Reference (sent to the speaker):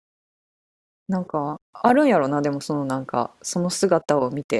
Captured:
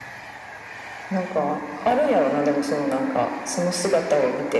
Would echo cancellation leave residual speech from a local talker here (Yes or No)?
No